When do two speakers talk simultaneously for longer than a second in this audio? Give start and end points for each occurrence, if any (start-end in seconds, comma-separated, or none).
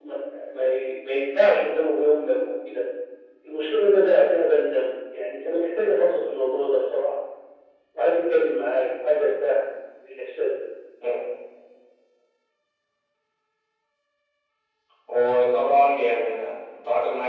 none